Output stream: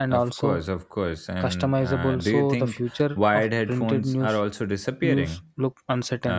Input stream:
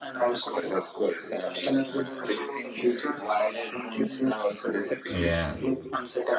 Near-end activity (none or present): present